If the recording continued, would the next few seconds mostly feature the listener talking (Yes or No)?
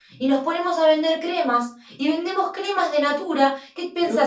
No